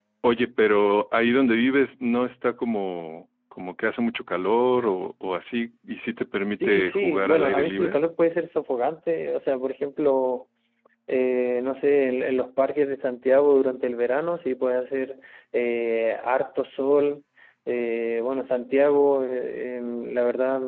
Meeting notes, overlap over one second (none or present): present